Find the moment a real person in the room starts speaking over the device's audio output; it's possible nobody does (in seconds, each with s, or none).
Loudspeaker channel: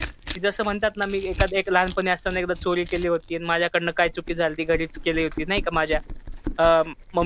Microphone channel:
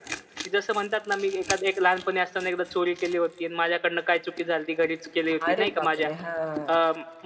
5.3 s